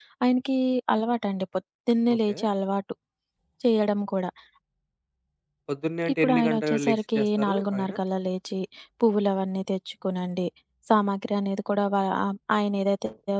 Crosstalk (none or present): present